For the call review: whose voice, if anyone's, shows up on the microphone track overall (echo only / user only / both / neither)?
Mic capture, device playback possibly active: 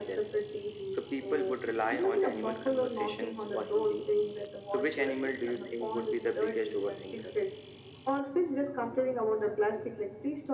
echo only